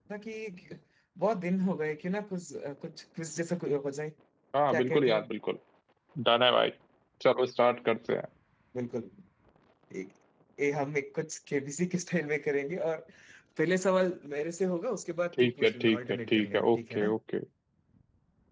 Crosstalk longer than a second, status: present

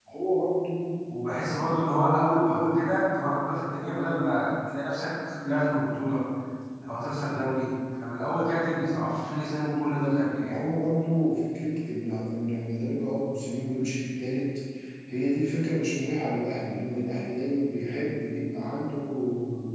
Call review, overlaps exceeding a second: none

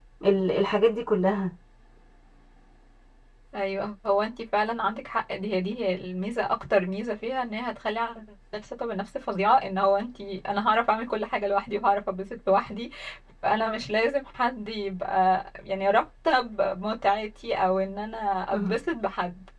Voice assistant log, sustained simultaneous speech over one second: none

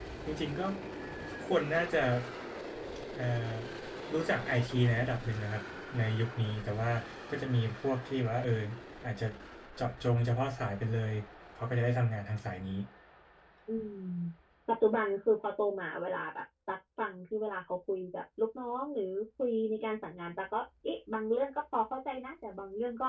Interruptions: none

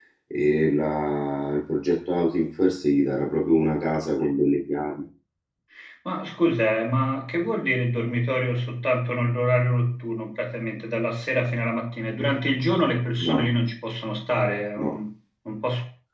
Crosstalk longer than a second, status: none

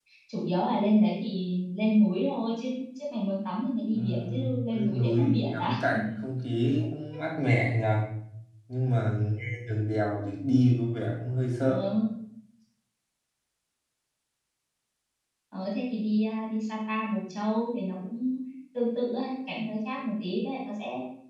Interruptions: present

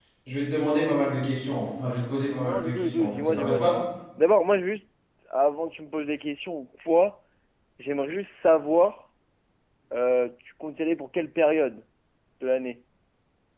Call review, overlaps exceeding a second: present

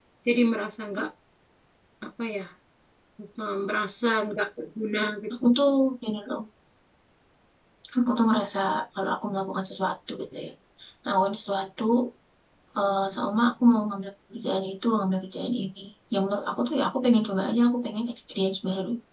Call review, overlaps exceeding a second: none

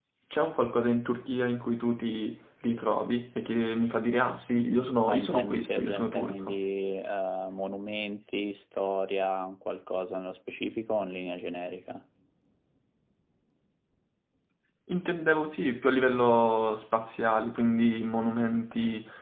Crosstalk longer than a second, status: present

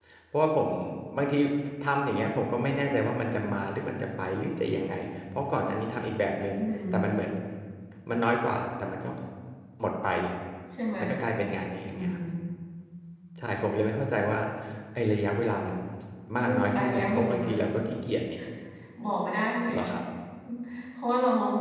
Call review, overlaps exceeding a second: present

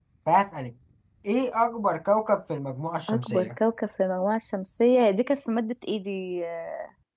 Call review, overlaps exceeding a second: none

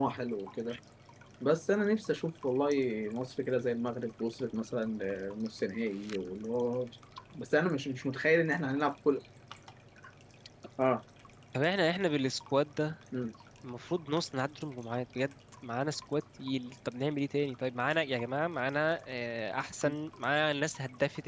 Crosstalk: none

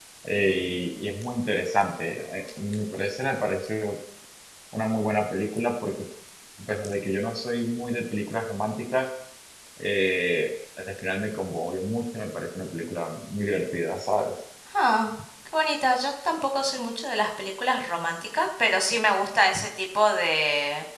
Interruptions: none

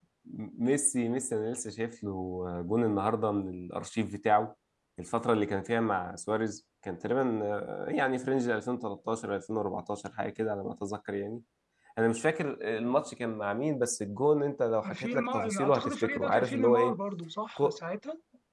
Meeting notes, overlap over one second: present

